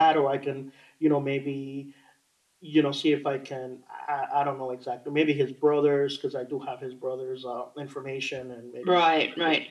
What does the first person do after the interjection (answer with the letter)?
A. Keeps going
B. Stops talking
B